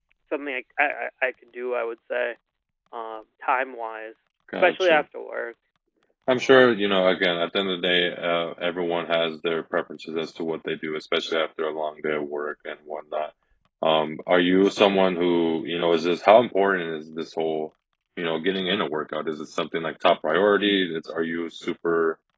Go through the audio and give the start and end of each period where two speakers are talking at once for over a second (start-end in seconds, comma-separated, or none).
none